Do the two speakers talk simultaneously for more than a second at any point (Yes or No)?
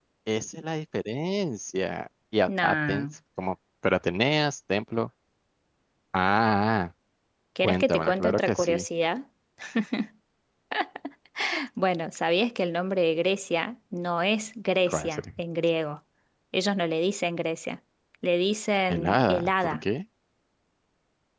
Yes